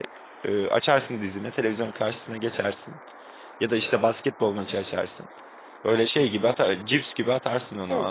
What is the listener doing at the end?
taking over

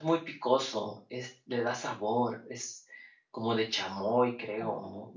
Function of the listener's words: taking over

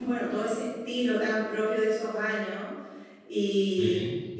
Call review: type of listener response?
listening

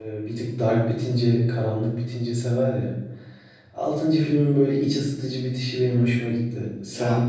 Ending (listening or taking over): taking over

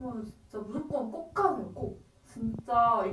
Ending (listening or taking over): listening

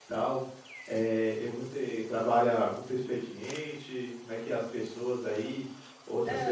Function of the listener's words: listening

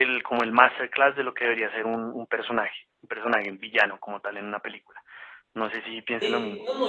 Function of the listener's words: taking over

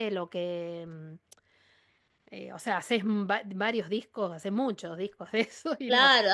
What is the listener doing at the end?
taking over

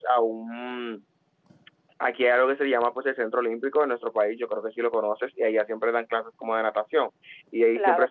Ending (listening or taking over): listening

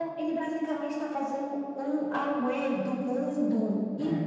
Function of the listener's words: listening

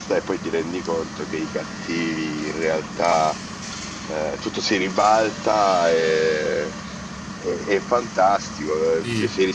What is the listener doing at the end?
listening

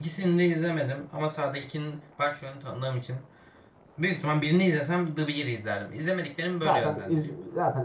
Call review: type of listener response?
taking over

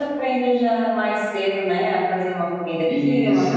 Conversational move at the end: listening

